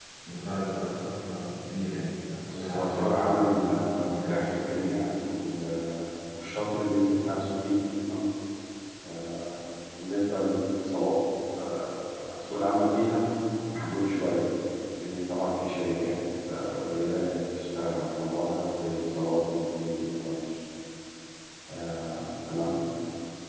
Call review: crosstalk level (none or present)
present